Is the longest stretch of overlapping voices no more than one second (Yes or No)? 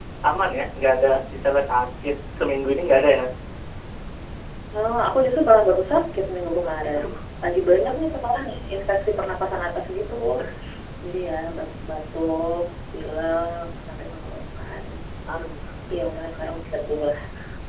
Yes